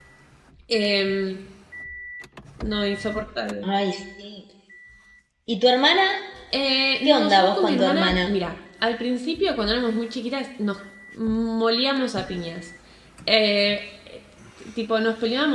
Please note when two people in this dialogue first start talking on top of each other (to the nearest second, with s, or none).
7 s